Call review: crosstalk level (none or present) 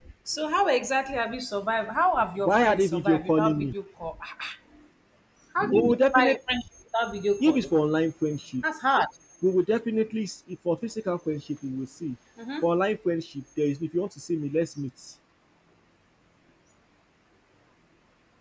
present